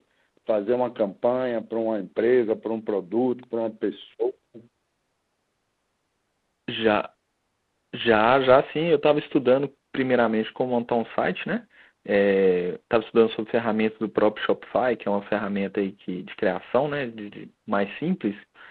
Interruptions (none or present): none